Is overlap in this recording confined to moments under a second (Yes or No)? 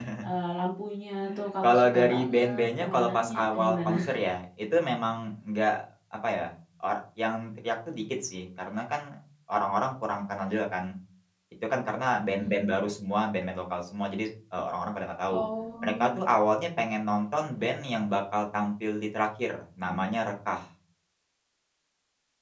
No